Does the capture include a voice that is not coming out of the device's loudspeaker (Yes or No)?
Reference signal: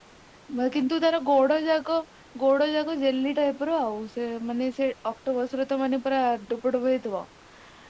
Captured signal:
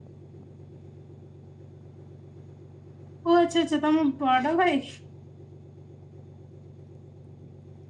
Yes